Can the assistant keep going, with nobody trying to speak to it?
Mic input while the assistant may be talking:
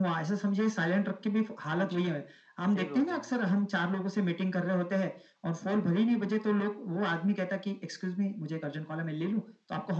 No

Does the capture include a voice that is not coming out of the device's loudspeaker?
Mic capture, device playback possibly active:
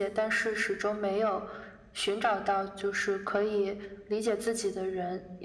No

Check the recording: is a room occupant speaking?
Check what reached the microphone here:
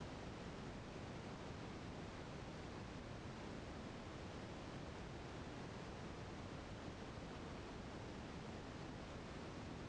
No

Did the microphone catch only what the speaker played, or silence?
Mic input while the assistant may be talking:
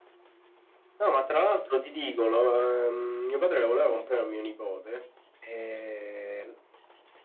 Yes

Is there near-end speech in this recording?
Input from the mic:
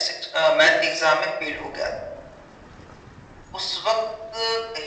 No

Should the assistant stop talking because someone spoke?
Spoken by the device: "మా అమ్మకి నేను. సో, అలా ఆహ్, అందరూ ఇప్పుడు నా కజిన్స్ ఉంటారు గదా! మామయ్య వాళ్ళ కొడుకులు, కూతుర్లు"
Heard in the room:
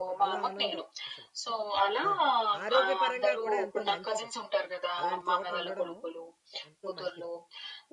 Yes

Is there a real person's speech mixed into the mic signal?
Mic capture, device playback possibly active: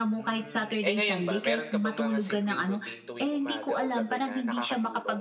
Yes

